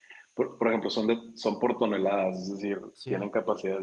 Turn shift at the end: No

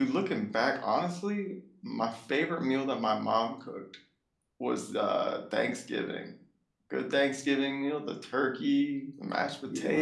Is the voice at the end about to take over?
No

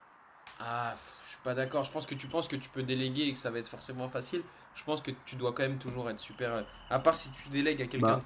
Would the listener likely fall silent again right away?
Yes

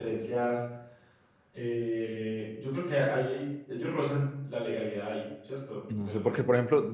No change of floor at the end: No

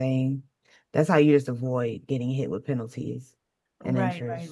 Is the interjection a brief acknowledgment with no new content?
No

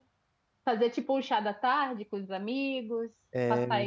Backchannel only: Yes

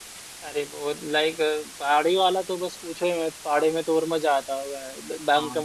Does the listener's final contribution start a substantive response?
No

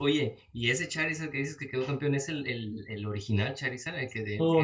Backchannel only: No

